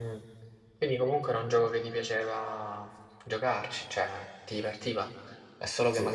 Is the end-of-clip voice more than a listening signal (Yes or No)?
No